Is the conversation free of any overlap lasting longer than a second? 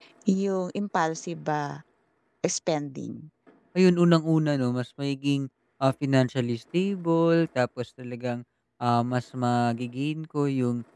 Yes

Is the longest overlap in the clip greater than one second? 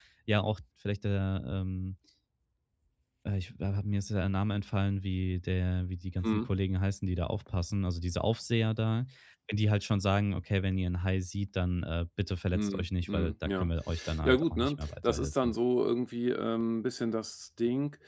Yes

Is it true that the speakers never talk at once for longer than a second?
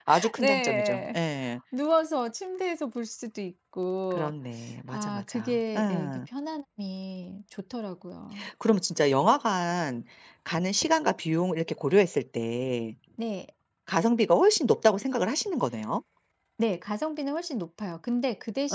No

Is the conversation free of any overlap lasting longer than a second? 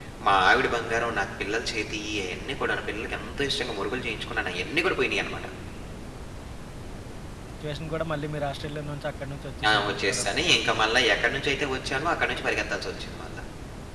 No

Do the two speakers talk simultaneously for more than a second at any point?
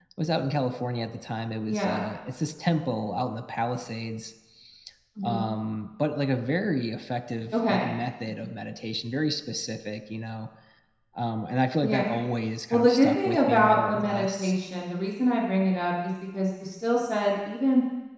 Yes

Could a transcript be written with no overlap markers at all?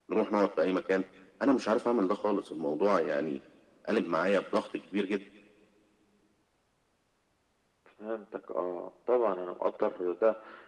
Yes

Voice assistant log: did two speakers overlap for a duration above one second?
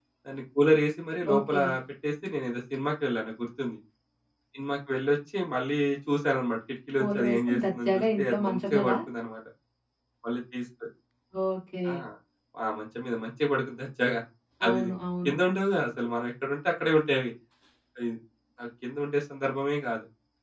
Yes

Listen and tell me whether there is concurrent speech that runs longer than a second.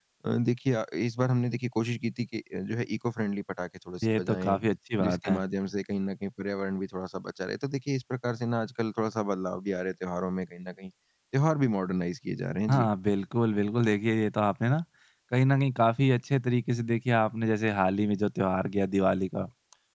No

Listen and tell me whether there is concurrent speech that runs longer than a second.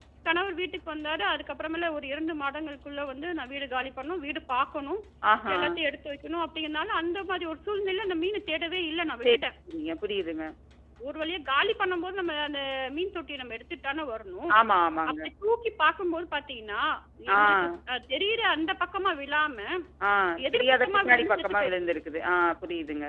Yes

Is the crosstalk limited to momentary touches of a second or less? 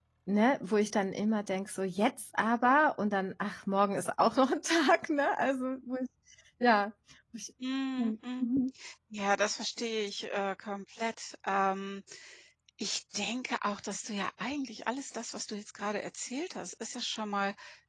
Yes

